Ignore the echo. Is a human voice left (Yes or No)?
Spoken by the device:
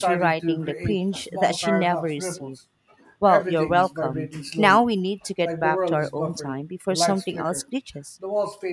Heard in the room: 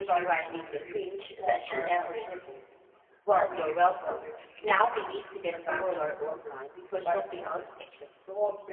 No